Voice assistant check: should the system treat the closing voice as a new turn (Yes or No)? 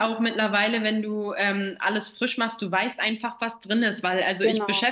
No